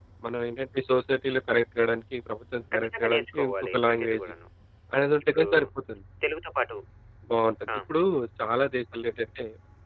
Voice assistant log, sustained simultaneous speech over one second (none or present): present